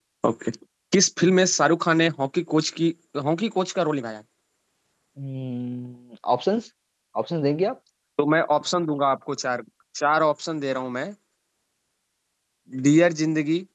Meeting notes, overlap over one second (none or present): none